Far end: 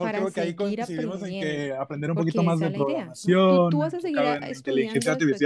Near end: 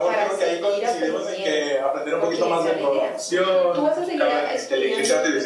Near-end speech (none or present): none